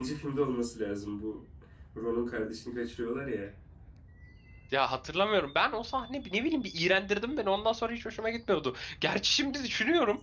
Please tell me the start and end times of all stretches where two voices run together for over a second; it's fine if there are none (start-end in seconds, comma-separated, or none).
none